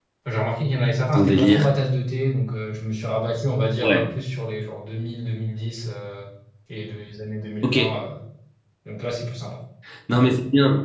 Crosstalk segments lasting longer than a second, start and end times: none

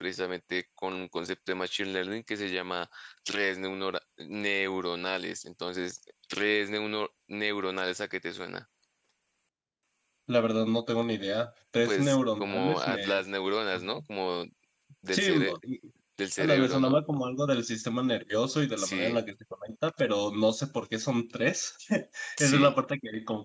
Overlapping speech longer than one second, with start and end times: 11.8-13.2

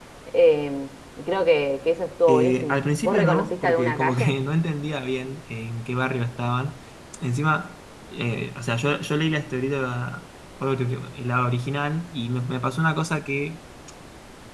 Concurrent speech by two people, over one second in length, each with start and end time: 2.3-4.3

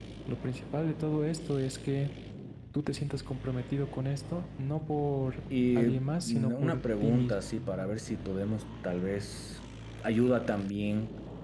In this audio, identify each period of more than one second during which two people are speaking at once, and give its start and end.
5.8-7.4

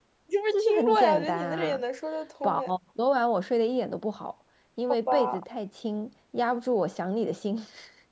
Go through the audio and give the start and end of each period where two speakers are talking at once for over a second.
0.5-1.8

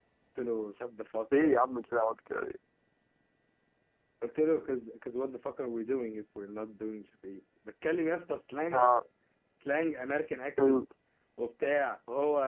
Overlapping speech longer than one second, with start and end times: none

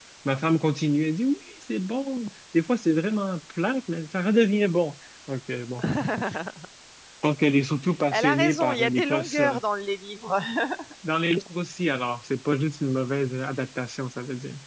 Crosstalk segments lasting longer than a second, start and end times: 8.1-9.4

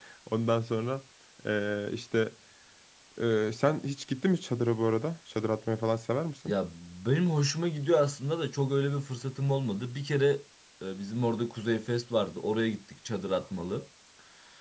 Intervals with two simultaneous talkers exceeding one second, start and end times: none

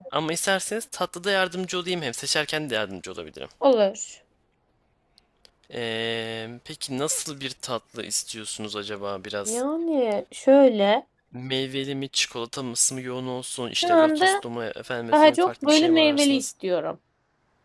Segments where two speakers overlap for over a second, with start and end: 15.1-16.5

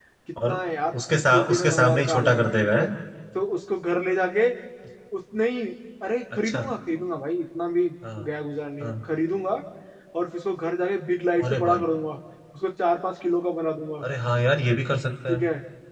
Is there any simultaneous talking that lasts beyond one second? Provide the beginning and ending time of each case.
1.3-2.8

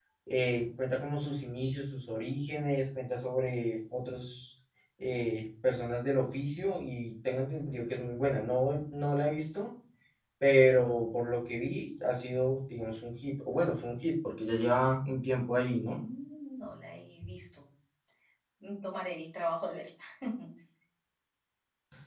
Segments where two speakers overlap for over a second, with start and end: none

